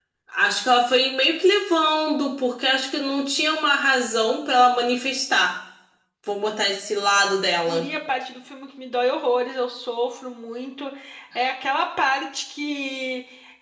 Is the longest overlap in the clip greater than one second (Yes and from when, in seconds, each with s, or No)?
No